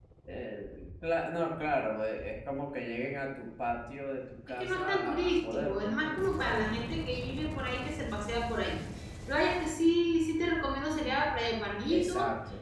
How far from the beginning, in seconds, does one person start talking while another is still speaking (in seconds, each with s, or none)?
4.6 s